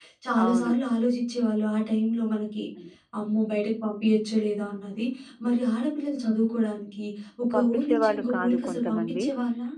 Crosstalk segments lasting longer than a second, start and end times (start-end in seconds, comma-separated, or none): 7.5-9.2